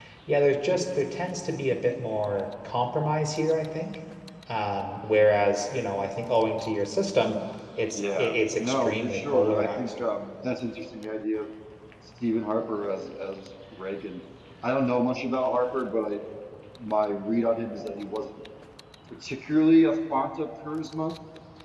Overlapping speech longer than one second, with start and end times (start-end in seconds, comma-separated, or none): 7.9-10.0